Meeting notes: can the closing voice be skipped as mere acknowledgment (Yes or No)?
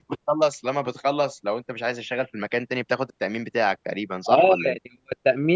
No